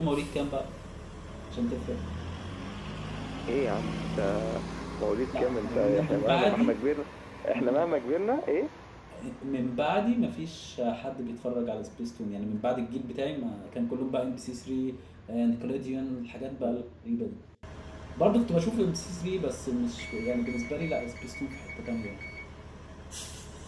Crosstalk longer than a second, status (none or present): present